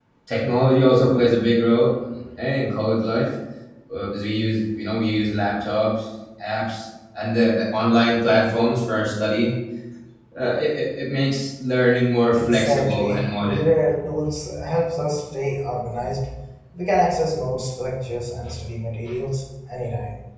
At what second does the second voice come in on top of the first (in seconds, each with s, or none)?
12.4 s